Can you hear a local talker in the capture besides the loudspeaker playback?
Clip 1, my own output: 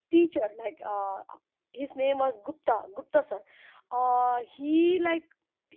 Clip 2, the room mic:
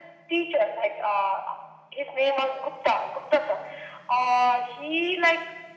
No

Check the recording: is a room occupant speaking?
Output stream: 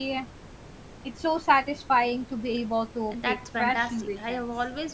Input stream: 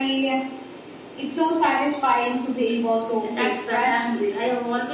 No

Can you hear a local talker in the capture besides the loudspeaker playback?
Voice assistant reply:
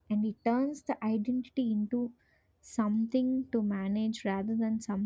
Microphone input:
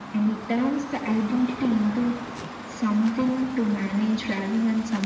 No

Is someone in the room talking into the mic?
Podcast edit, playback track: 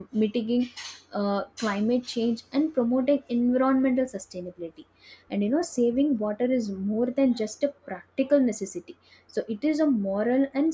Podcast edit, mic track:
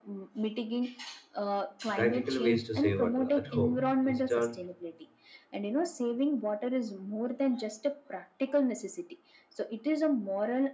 Yes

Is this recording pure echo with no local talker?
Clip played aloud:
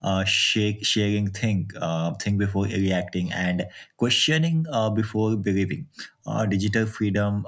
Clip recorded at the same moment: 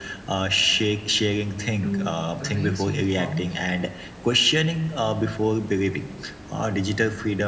No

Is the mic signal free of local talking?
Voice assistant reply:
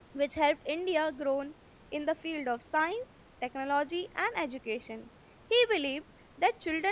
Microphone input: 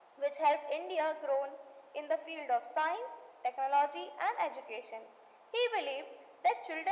Yes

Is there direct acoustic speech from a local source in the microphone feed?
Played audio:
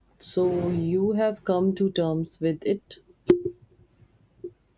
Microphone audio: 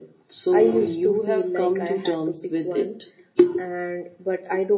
Yes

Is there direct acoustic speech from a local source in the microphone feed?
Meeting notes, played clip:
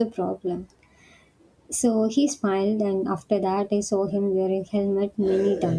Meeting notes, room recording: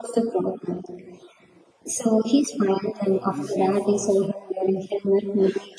Yes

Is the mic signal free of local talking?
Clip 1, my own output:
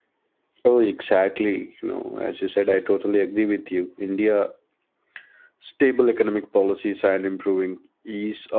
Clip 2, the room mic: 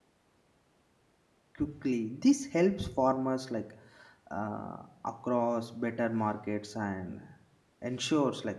No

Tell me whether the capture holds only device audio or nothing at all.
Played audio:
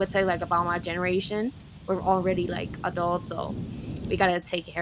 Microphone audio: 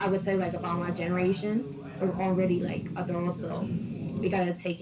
No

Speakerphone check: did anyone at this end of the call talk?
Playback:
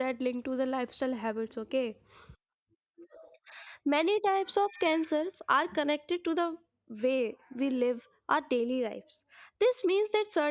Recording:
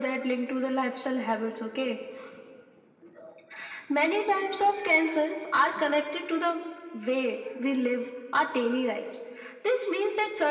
No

